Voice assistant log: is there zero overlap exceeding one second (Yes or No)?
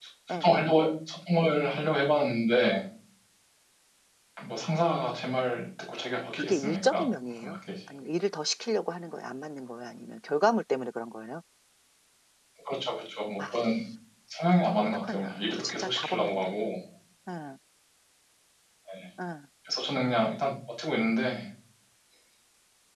No